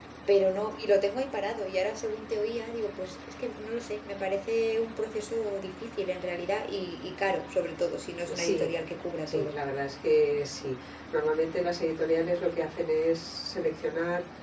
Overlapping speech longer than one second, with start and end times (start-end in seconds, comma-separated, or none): none